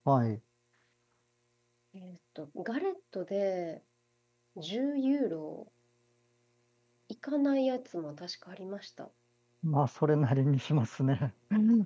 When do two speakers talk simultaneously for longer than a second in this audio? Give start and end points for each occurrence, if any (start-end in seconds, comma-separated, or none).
none